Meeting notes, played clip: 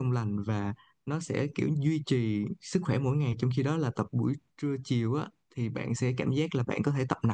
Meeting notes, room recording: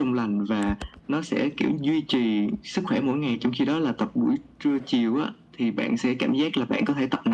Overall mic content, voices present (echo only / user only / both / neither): echo only